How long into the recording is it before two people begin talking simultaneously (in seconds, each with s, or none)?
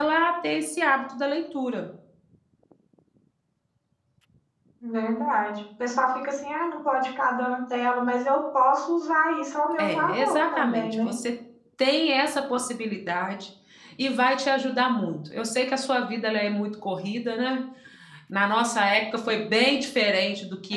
9.8 s